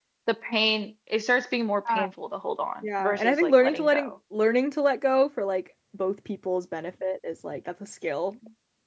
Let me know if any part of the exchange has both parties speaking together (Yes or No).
Yes